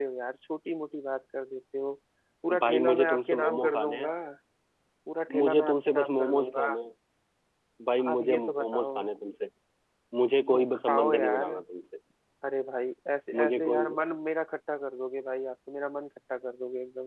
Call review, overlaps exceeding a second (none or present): present